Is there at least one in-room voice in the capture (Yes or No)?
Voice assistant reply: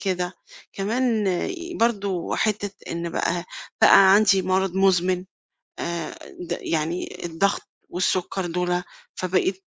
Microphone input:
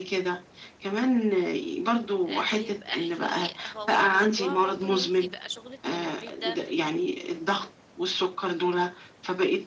Yes